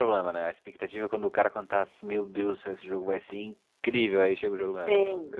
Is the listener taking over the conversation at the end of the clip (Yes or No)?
Yes